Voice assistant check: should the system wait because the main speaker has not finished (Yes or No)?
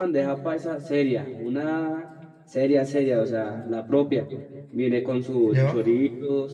Yes